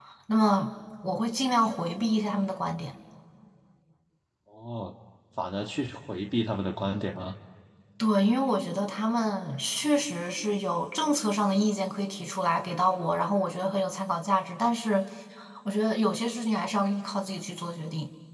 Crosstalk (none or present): none